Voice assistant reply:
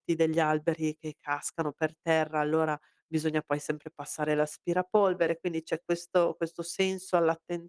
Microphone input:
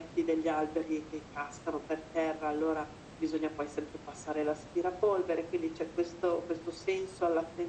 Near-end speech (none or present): none